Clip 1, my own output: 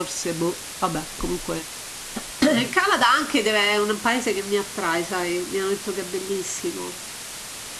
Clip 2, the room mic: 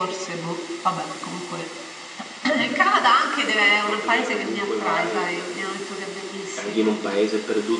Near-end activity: present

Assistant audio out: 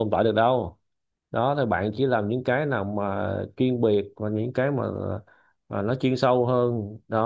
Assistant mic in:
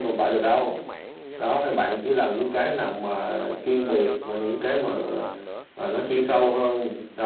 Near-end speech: present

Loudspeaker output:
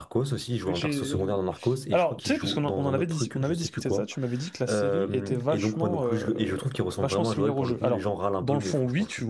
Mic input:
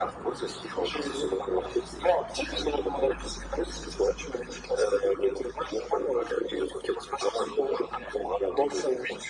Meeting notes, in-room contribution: none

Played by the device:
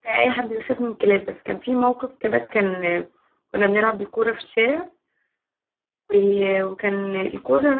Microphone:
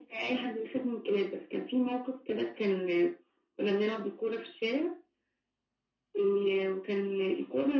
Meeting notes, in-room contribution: none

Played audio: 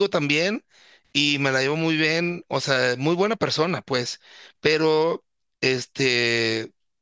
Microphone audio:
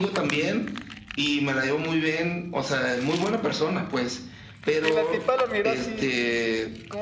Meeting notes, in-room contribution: present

